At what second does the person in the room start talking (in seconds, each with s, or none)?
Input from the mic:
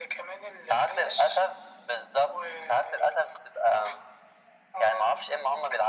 none